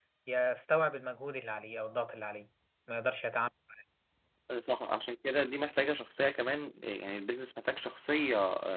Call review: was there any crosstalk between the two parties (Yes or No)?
No